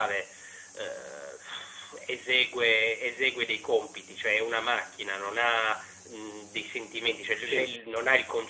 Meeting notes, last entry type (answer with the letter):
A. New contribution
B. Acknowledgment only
B